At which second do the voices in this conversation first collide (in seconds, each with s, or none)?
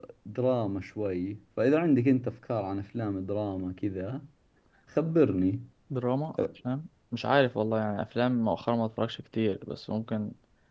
none